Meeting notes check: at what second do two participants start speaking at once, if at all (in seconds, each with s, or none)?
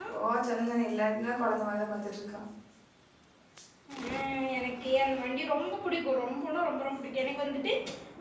none